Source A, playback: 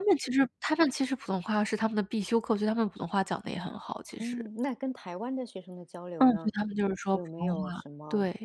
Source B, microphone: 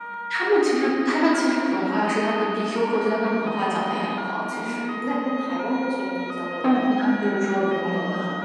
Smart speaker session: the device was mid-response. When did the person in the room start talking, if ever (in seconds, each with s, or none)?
none